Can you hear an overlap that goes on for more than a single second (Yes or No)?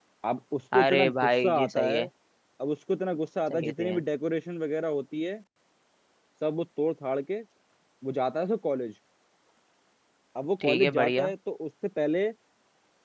Yes